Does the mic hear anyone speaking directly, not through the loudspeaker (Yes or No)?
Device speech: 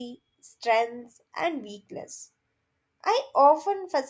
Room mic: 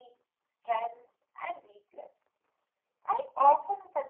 No